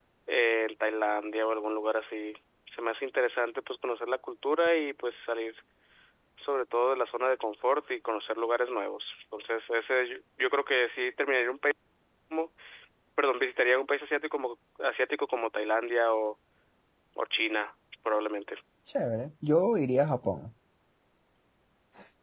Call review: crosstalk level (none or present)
none